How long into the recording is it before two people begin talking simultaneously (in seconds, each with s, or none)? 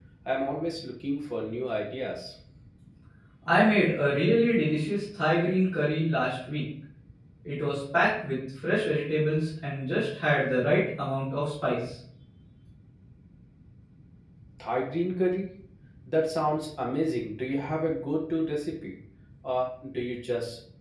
none